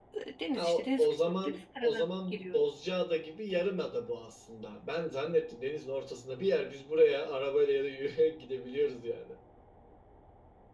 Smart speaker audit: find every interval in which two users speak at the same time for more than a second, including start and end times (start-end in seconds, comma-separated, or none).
0.5-2.6